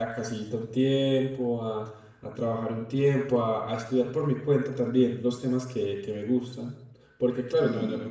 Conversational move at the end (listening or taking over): listening